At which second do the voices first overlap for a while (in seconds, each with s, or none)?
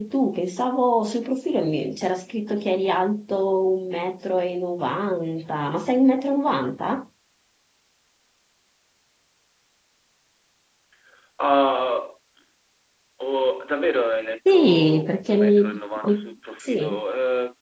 14.4 s